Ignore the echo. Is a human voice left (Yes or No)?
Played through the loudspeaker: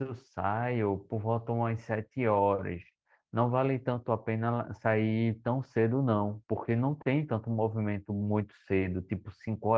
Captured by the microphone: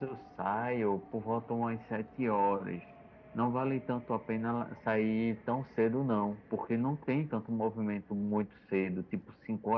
No